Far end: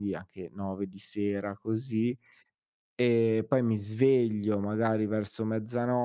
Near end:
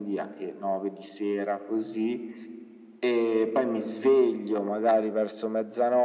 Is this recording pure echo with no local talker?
Yes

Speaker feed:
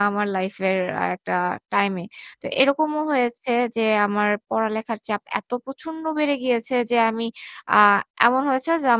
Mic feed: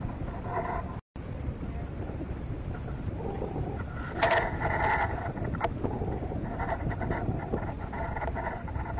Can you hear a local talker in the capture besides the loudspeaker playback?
No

